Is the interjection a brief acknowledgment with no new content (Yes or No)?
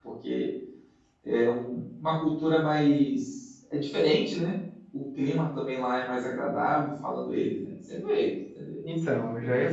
No